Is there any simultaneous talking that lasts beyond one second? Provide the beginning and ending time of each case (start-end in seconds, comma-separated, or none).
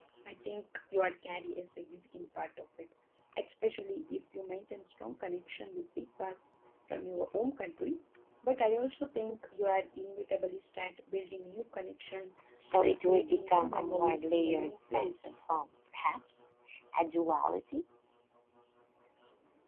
12.8-15.5